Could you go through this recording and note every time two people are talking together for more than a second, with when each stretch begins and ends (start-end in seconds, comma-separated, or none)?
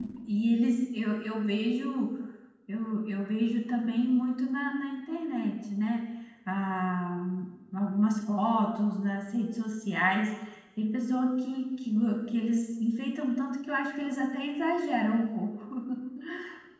none